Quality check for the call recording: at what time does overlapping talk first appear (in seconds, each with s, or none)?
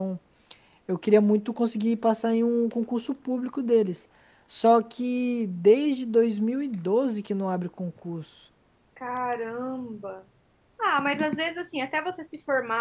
none